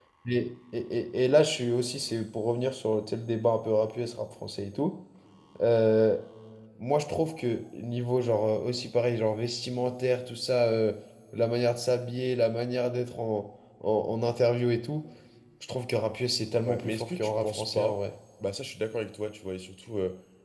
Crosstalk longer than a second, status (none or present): present